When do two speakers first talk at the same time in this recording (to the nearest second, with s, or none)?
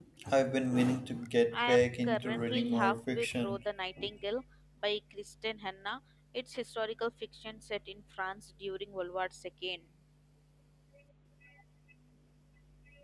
2 s